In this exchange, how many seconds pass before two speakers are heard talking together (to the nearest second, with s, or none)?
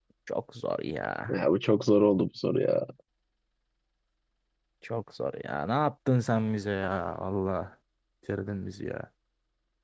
none